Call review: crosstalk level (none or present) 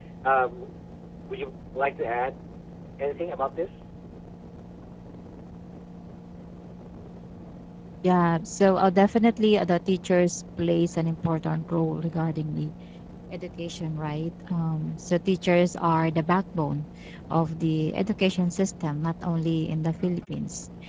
none